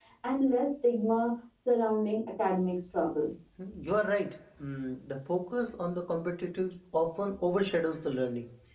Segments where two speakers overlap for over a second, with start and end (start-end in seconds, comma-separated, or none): none